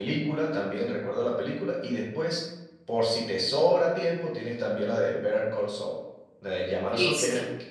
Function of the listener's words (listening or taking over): listening